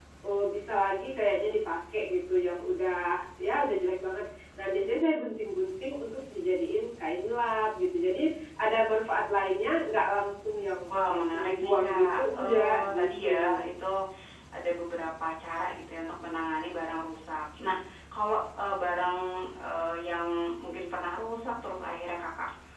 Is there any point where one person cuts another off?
Yes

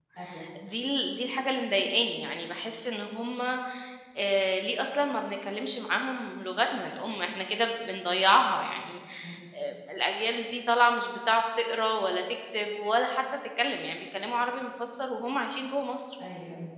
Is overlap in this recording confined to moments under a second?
Yes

